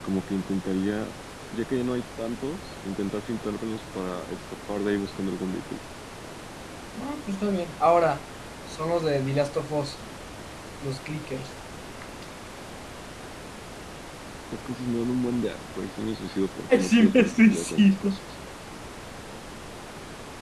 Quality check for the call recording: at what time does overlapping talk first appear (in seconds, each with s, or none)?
16.7 s